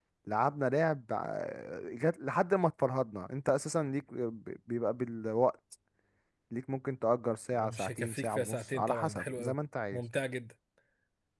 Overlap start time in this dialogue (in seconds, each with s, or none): 7.5 s